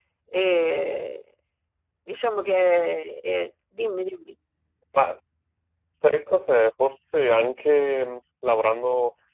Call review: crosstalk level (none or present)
none